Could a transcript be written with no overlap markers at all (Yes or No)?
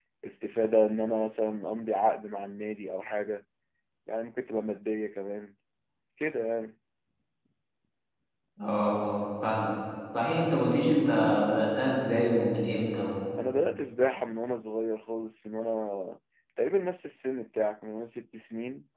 Yes